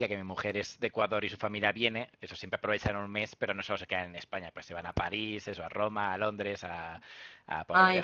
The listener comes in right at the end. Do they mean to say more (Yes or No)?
Yes